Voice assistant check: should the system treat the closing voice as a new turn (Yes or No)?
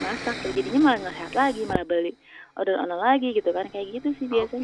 Yes